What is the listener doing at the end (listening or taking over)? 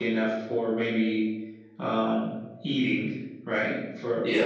listening